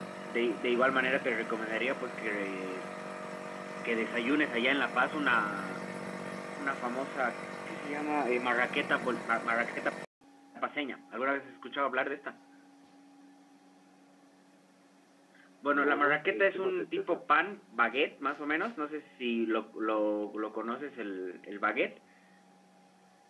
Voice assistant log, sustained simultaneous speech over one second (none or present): present